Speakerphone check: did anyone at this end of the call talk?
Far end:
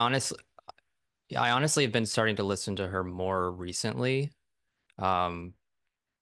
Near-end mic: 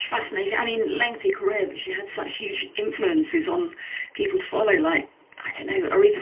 Yes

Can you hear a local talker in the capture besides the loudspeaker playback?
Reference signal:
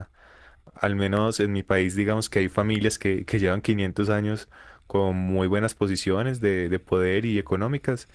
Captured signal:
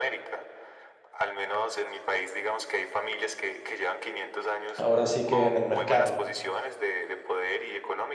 Yes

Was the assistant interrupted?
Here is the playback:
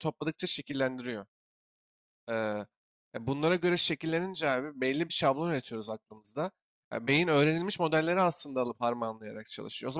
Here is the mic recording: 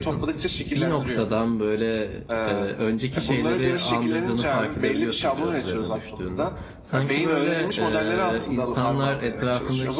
Yes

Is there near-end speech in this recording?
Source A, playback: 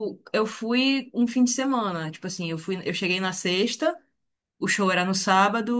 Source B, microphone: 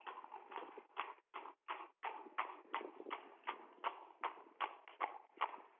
No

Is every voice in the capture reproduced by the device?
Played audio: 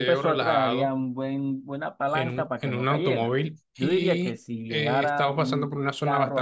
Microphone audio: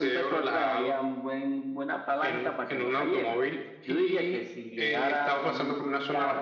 Yes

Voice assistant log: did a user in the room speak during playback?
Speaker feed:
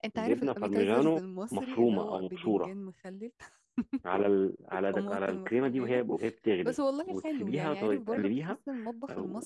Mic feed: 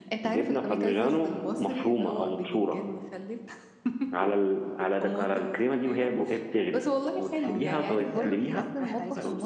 Yes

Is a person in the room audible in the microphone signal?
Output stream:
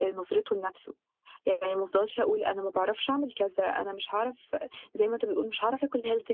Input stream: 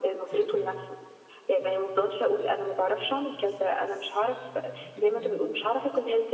Yes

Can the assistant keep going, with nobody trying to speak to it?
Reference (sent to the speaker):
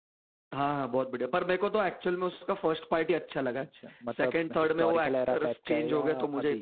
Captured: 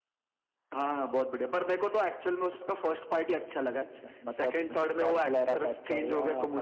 Yes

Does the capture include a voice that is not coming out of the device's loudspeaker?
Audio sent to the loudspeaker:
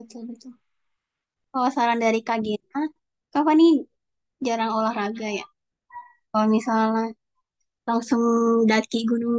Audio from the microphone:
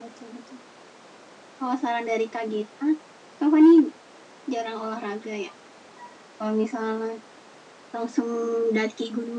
No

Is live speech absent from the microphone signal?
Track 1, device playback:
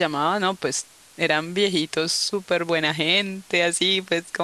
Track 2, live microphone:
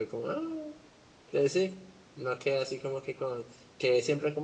No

